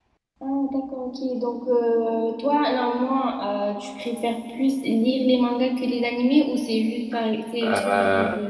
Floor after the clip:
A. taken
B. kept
A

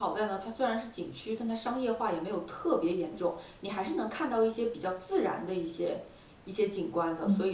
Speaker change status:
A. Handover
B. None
A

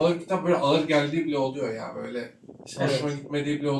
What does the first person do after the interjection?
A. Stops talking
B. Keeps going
B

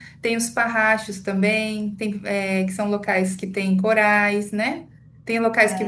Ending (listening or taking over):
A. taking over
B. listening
B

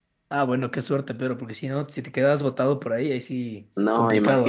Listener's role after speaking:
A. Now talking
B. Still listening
A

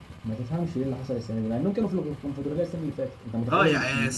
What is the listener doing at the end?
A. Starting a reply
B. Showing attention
A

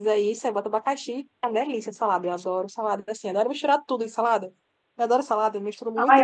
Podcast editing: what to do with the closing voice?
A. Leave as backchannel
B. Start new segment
B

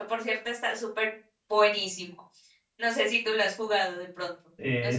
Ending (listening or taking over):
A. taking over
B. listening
A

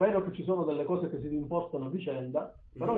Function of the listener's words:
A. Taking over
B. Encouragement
B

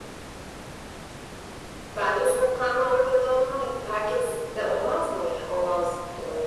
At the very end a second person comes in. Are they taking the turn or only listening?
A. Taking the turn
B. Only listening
A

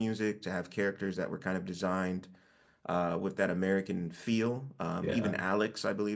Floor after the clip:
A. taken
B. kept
B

